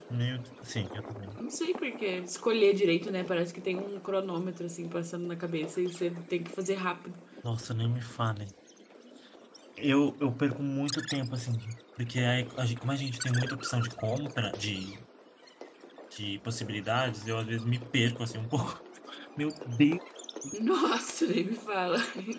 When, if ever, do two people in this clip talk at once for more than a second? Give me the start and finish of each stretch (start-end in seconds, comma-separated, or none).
none